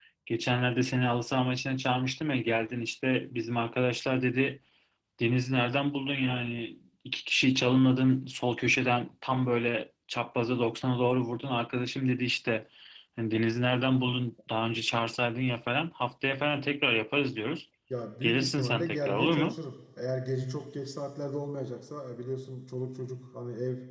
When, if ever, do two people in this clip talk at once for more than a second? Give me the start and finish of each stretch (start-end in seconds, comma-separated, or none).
18.2-19.6